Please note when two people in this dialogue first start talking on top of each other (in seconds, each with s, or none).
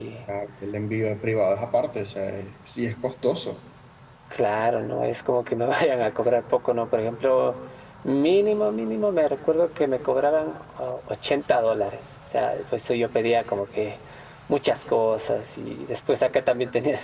none